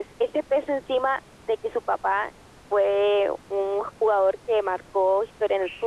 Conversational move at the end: taking over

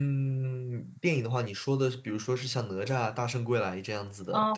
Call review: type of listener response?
taking over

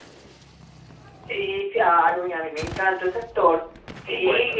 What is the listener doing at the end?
listening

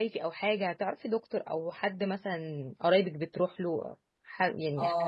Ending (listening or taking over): taking over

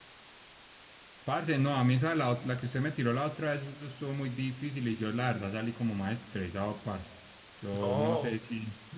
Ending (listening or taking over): taking over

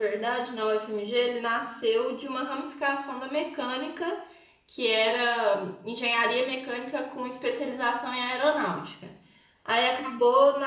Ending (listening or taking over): listening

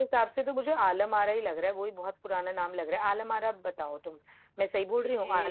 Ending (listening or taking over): taking over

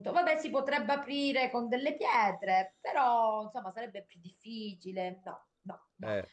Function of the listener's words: listening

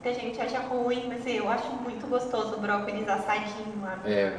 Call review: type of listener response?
taking over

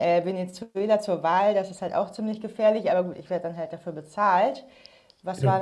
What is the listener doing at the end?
listening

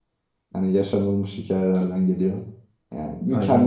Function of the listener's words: listening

